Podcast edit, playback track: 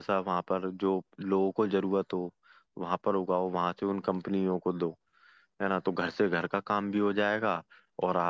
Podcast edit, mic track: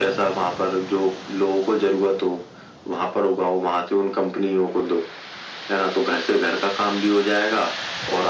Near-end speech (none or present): none